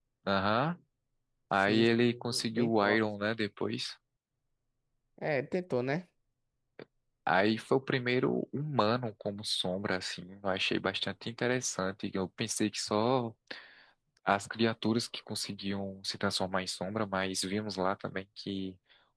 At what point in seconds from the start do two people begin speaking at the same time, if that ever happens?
1.6 s

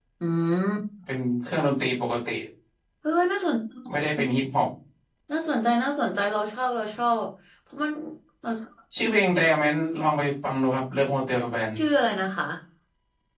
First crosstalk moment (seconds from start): none

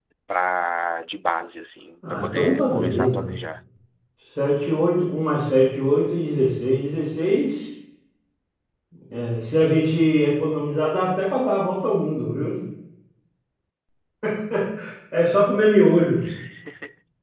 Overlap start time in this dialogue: 2.0 s

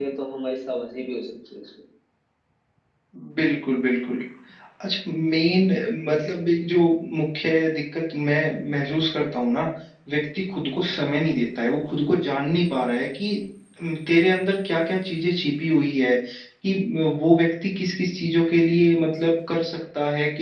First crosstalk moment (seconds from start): none

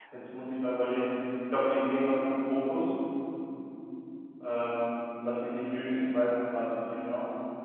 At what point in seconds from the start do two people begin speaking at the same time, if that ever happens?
none

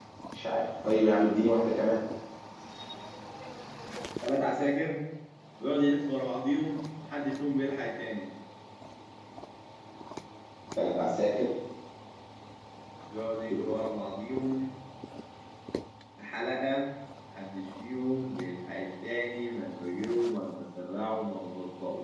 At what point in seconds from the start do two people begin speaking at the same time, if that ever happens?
none

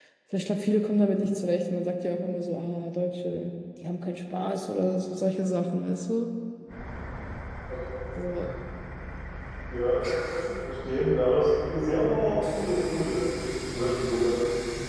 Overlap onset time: none

